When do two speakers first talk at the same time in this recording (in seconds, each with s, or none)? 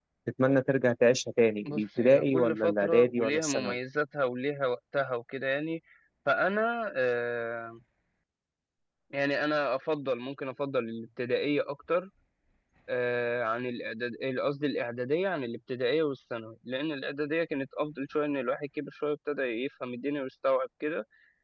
1.6 s